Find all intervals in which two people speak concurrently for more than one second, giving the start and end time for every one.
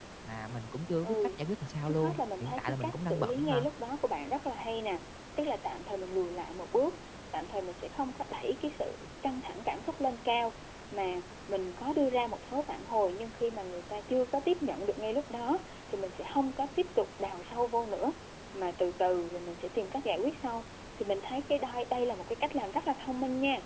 1.9-3.7

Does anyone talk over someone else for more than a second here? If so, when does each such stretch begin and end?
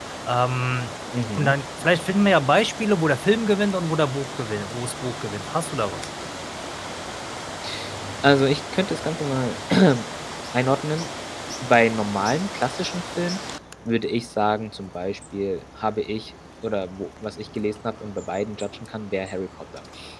none

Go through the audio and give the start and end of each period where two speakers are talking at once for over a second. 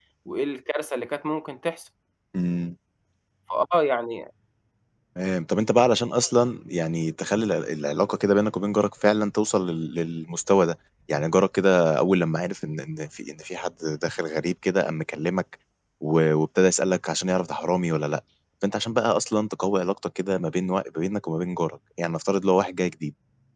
none

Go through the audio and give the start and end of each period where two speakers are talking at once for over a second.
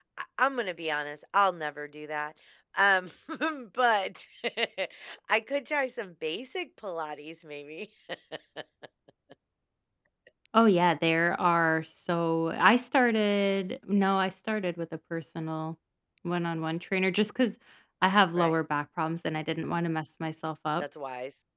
none

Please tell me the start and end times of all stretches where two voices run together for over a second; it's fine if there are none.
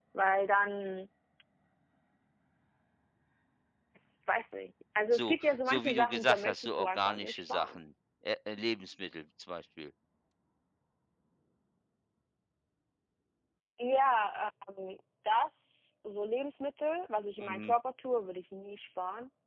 5.1-7.8

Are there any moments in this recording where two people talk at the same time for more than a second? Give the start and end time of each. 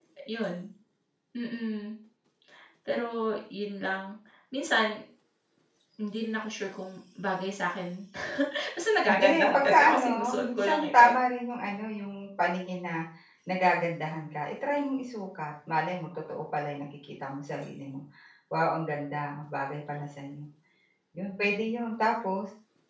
9.1-11.1

